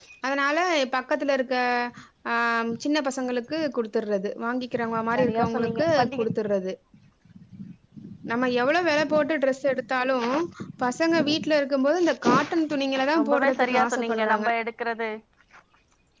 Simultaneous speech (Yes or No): Yes